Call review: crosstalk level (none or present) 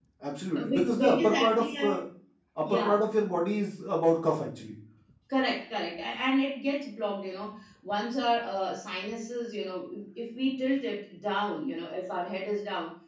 present